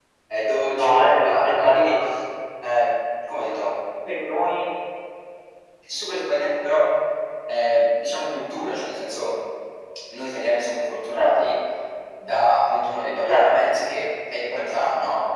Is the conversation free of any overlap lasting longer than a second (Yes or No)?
No